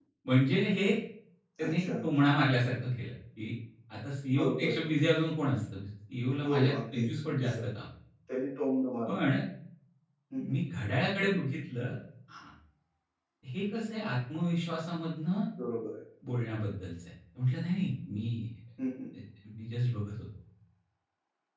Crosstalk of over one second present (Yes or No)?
Yes